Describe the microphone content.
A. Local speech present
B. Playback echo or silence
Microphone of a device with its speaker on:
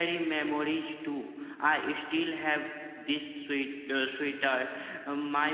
B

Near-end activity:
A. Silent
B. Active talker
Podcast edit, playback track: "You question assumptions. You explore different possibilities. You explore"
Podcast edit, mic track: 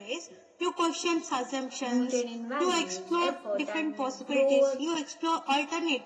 B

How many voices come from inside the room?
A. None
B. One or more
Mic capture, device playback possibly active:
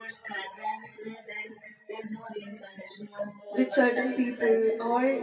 B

